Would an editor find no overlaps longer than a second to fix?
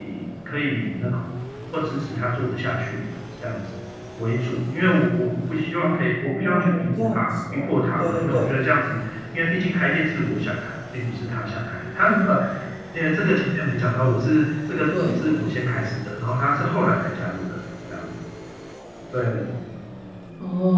No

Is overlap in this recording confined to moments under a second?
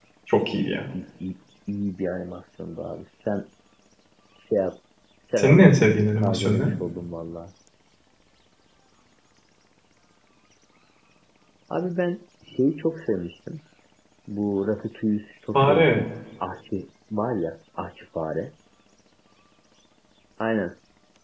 No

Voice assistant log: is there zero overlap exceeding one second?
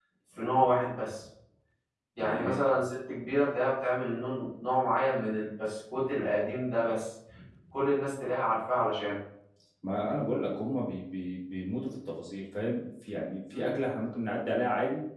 Yes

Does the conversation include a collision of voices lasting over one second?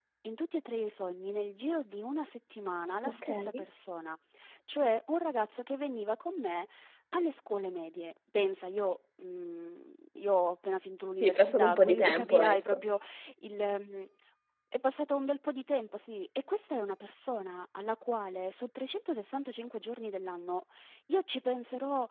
Yes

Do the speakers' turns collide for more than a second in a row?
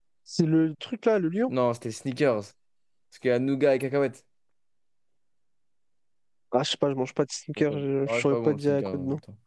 Yes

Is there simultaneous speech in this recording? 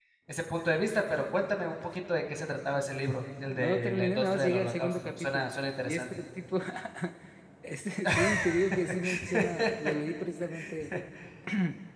Yes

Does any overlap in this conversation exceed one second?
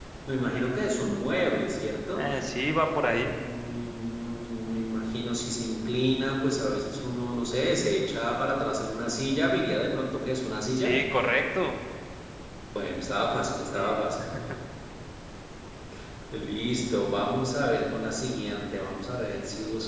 No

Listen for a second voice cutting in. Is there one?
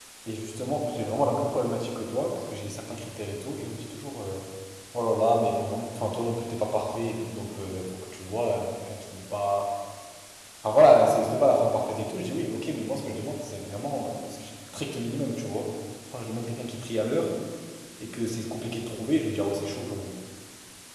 No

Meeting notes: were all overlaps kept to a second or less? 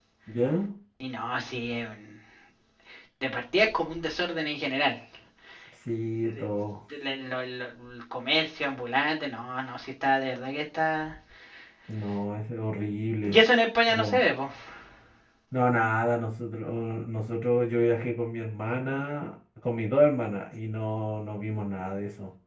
Yes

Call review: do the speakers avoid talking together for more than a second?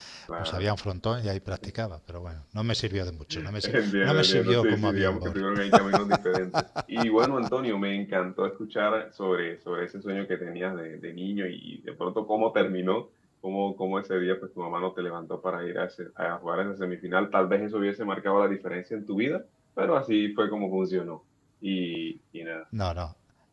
No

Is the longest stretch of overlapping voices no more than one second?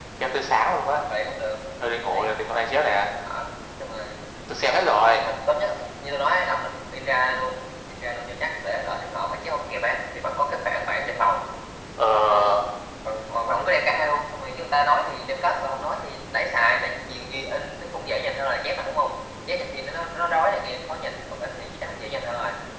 Yes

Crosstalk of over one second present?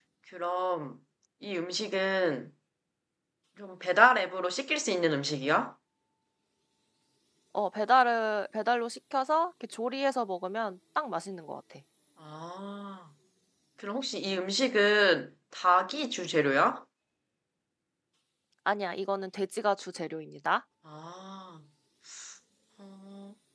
No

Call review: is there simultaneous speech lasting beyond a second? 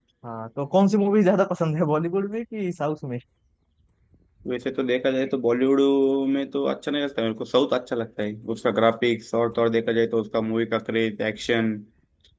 No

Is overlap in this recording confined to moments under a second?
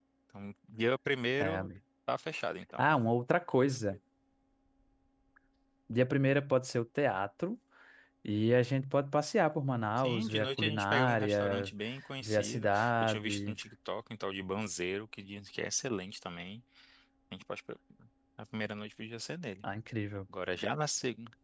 No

